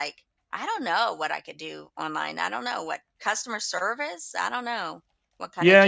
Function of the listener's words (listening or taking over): taking over